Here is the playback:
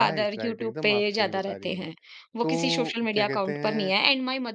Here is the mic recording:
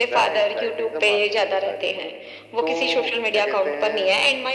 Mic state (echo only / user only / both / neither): echo only